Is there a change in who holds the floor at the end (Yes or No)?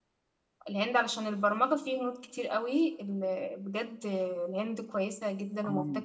Yes